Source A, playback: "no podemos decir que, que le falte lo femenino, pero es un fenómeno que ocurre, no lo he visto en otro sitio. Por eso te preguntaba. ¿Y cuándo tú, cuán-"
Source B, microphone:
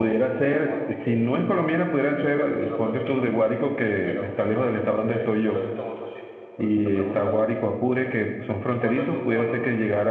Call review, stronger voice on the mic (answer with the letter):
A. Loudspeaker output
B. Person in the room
B